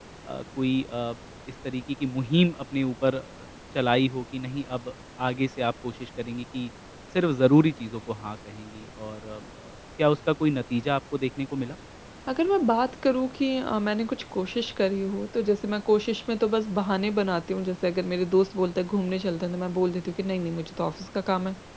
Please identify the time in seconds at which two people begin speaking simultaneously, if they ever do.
none

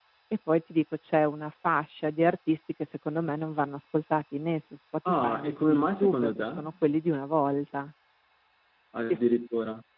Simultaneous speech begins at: 5.0 s

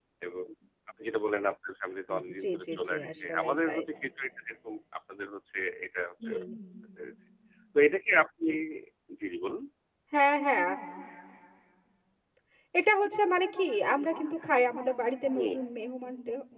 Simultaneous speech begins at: 2.1 s

